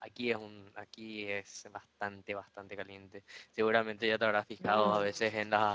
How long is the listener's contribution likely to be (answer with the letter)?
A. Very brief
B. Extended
A